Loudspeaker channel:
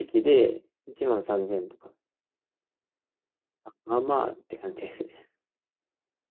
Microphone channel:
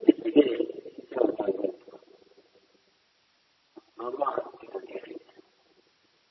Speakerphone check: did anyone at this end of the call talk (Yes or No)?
No